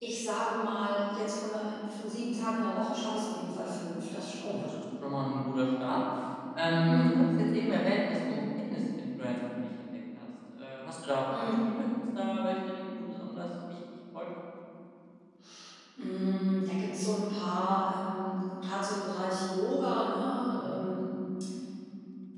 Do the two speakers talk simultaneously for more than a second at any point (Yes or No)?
No